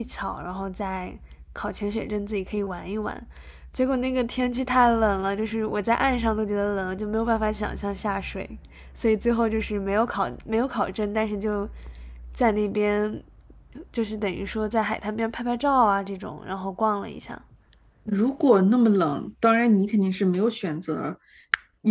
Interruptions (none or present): none